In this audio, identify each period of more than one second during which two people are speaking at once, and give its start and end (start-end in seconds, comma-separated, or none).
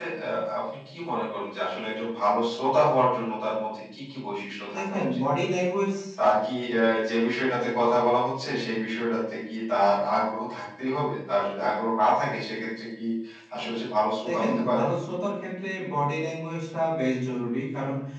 none